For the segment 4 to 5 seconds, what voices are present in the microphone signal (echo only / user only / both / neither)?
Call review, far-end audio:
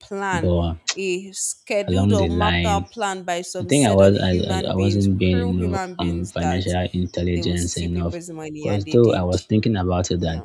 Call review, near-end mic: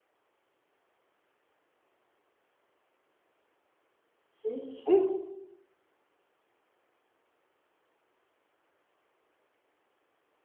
user only